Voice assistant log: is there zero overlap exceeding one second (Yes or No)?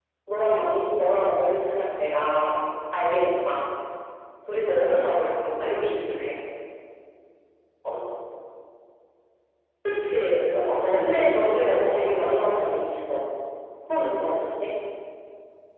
No